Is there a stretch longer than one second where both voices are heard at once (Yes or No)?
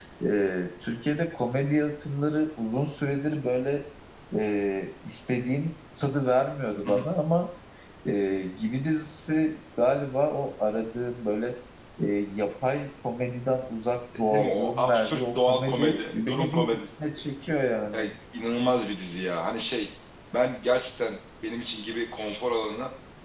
Yes